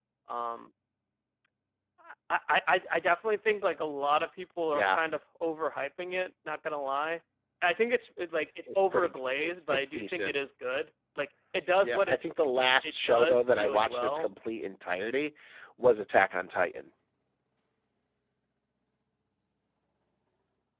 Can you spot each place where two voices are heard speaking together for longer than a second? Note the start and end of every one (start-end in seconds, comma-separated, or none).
8.9-10.4, 12.8-14.3